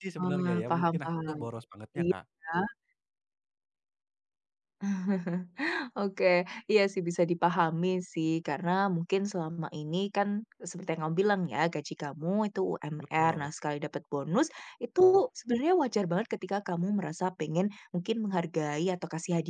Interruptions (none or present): present